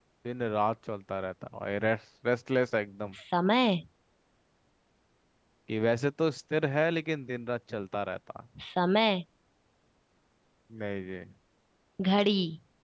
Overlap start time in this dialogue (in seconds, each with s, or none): none